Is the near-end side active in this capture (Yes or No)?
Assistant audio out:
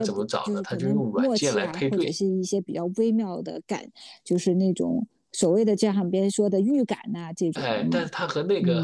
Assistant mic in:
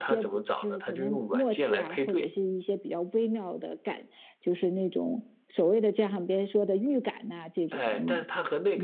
No